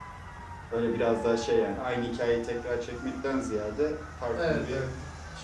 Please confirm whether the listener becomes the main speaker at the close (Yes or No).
No